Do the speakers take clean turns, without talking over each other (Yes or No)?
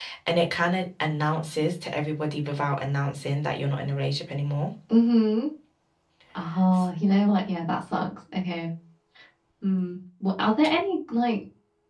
Yes